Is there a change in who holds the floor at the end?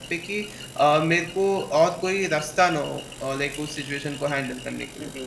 Yes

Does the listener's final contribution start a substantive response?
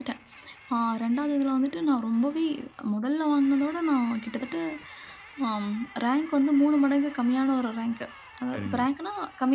No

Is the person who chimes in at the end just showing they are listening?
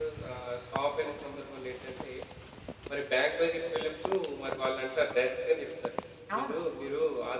Yes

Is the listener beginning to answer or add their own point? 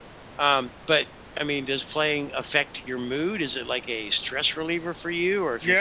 Yes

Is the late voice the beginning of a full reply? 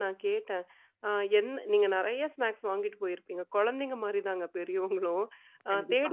No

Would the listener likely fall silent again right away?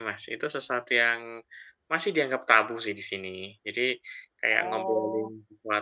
Yes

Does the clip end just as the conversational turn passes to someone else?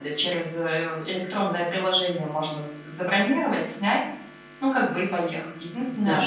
No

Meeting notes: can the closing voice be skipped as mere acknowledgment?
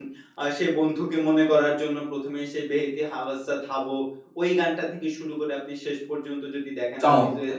Yes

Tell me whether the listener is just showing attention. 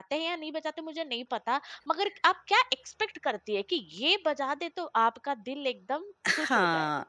No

